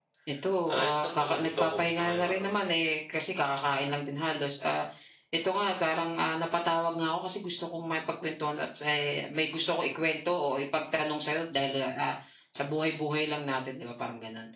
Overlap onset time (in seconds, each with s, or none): 0.7 s